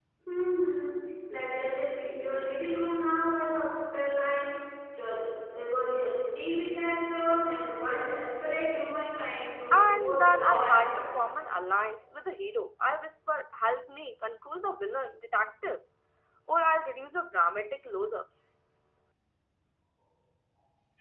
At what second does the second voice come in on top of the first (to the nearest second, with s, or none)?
10 s